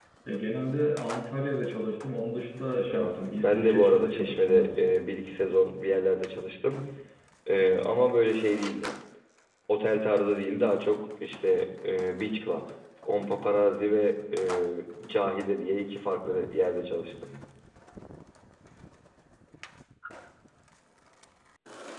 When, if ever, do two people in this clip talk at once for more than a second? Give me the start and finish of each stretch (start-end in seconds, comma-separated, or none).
2.9-4.9